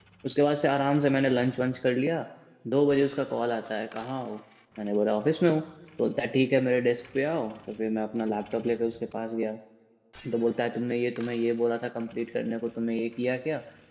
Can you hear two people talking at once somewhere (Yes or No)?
No